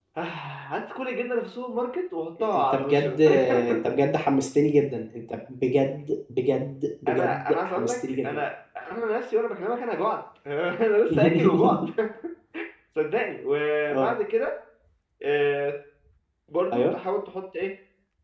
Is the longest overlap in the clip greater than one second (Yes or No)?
Yes